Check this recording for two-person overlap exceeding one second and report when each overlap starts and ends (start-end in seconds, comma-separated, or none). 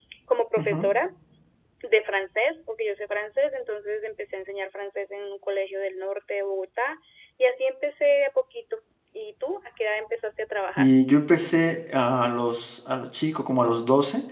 none